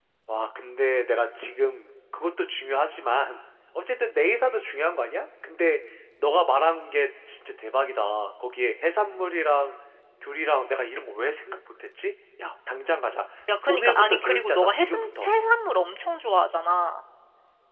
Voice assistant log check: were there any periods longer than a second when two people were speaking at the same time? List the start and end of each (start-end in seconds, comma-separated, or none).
13.7-15.3